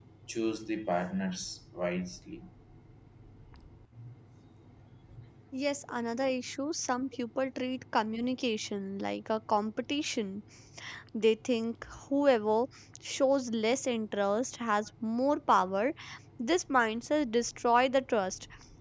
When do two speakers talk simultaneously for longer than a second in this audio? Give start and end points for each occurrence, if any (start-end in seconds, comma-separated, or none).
none